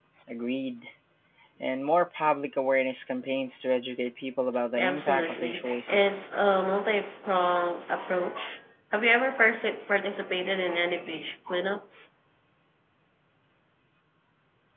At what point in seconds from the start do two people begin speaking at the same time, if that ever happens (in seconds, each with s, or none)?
4.8 s